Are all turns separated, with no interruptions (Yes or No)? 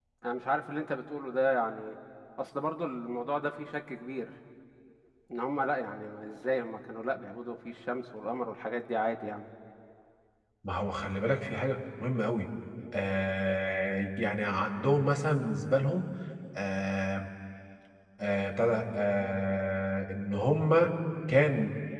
Yes